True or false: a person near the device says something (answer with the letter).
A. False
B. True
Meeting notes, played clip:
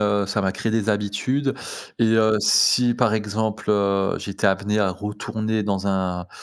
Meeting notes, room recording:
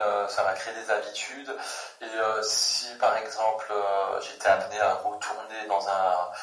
A